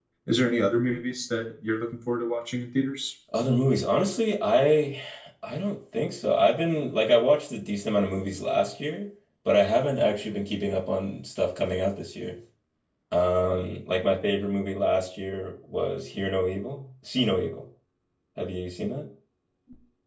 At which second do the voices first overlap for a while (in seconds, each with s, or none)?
none